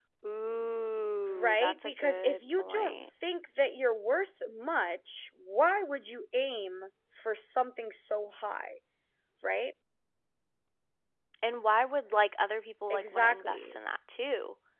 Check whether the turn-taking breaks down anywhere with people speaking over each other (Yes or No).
Yes